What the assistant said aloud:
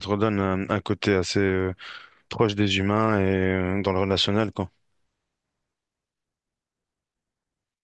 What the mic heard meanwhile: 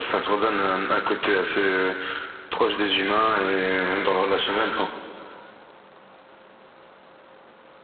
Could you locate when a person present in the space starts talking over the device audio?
none

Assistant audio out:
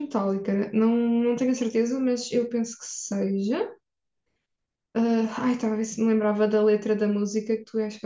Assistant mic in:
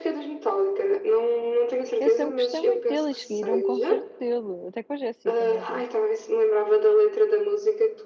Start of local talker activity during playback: 2 s

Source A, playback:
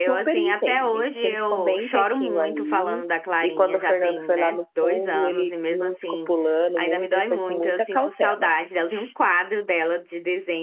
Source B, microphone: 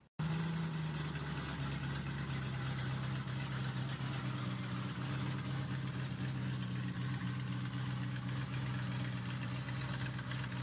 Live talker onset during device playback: none

